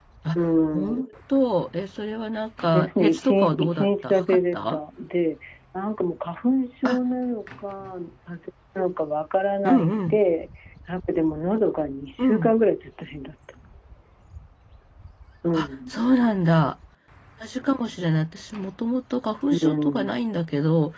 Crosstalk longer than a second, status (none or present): present